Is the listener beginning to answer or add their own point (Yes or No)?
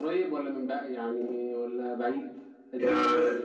Yes